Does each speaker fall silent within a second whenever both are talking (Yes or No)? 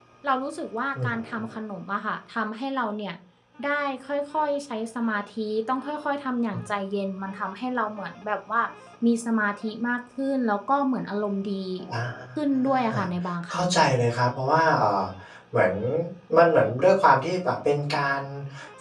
Yes